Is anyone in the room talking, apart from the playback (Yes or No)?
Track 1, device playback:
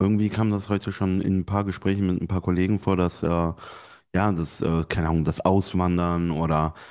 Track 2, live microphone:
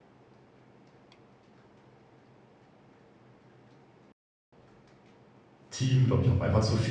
Yes